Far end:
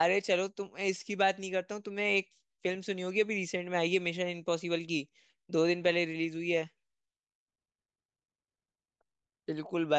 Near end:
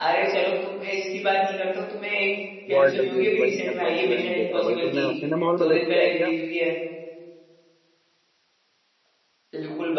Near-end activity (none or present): present